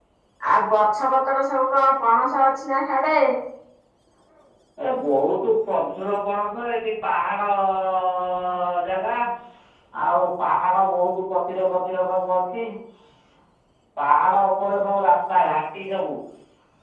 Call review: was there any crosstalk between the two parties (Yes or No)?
No